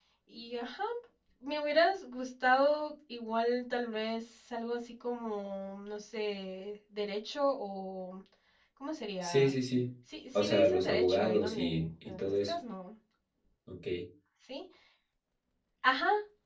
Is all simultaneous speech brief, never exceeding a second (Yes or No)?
No